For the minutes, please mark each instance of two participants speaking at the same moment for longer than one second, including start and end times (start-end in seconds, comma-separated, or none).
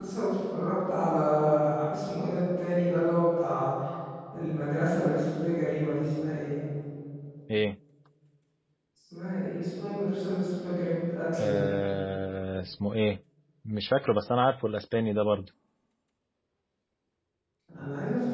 none